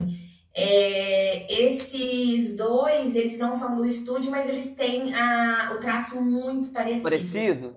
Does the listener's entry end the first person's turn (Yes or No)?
Yes